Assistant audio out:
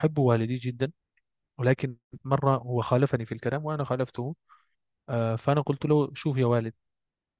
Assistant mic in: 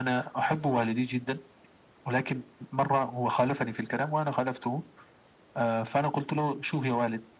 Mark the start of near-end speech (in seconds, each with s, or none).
none